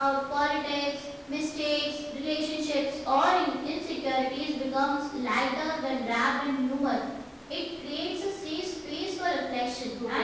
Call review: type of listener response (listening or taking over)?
listening